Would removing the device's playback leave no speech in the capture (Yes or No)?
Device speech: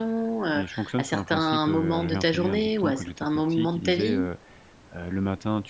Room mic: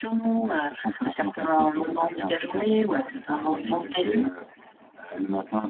No